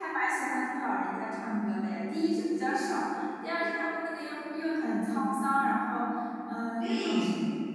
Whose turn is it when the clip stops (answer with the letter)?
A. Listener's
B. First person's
B